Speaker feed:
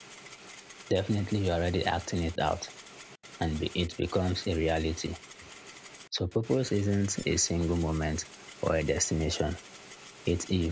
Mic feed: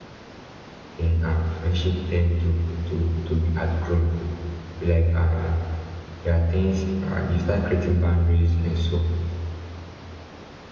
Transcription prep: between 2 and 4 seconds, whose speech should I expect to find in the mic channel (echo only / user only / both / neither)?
user only